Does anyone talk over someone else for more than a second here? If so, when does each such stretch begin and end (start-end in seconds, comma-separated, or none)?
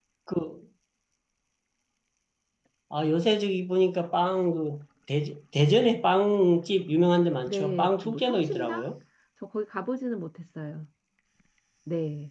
7.5-8.9